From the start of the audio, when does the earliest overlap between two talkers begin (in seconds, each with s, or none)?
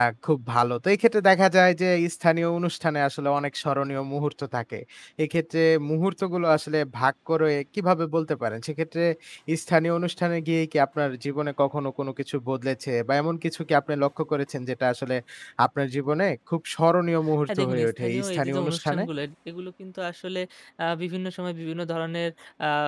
17.2 s